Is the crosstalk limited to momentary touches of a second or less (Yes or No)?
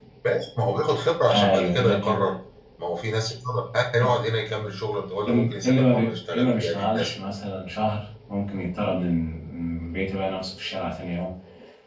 No